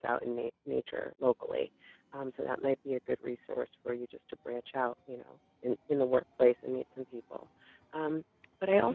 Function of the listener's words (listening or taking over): listening